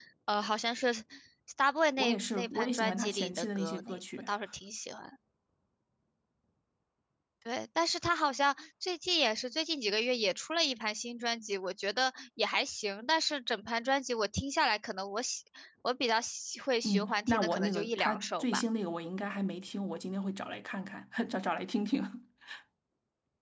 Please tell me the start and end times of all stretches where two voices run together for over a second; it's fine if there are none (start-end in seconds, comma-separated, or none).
2.0-4.0, 16.8-18.6